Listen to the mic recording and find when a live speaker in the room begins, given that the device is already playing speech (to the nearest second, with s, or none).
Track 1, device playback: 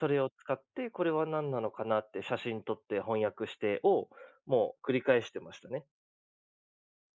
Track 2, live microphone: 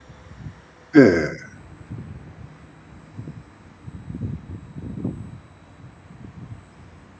1 s